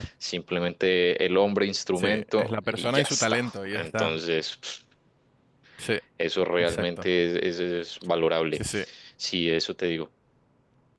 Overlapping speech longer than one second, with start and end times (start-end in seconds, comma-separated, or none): 2.0-4.2